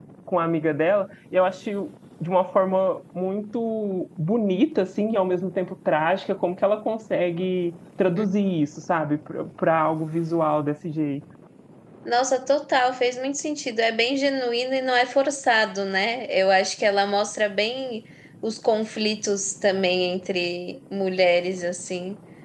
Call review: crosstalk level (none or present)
none